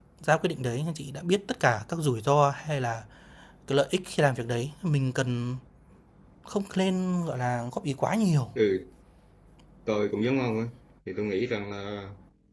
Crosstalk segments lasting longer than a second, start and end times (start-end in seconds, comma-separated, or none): none